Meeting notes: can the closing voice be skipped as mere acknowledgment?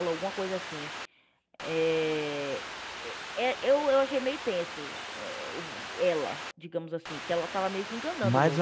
No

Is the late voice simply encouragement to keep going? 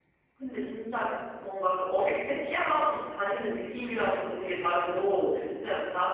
Yes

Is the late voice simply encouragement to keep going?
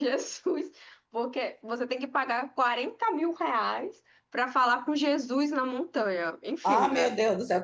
No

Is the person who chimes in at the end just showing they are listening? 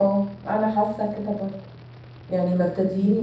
Yes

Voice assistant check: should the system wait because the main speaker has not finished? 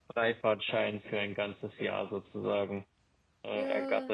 No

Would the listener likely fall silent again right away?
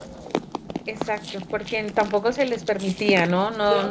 Yes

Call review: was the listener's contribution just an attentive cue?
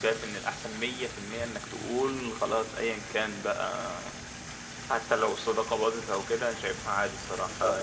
Yes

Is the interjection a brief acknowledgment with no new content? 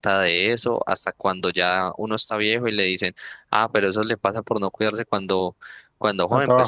Yes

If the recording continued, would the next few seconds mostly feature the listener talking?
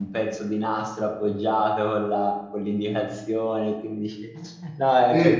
No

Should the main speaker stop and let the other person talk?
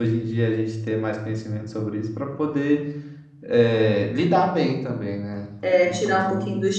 Yes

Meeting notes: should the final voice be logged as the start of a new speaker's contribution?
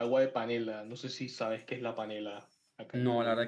Yes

